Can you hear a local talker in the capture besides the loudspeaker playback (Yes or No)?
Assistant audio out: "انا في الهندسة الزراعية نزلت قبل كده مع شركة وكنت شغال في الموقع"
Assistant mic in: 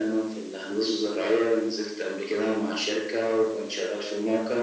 No